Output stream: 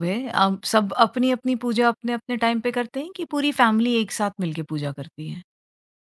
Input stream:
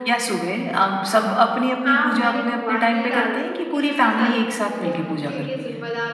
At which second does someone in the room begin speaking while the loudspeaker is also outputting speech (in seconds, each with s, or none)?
1.8 s